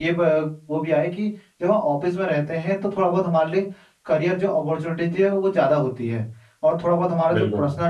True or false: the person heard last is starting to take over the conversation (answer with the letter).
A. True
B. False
B